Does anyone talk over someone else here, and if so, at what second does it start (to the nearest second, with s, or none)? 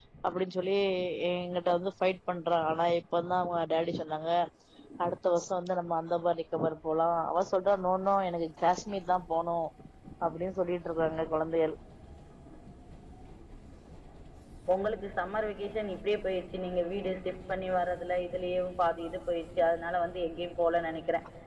none